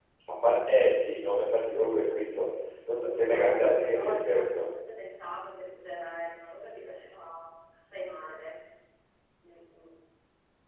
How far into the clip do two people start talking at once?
3.0 s

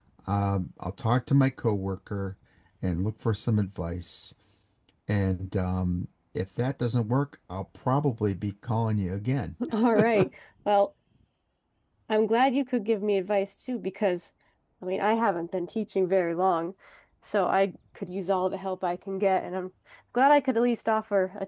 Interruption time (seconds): none

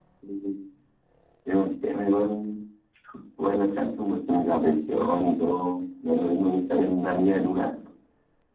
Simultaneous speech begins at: none

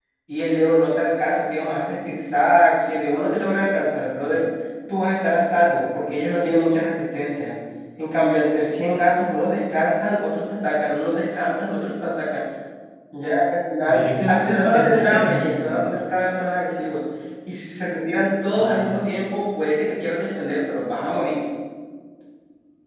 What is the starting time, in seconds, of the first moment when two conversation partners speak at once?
13.9 s

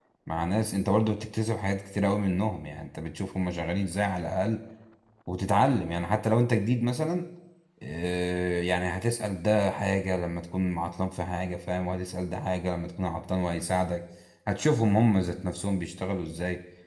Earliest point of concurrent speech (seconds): none

